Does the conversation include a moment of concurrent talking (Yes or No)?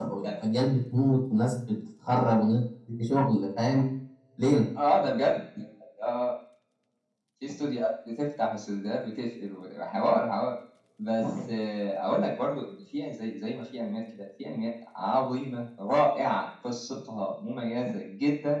No